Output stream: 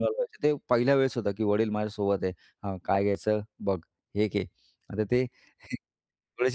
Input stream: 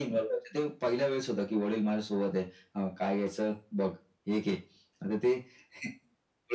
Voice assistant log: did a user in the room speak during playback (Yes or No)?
No